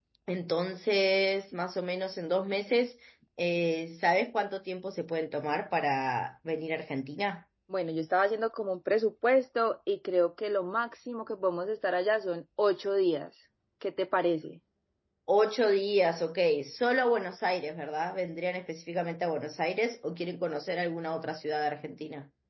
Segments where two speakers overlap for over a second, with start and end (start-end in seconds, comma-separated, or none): none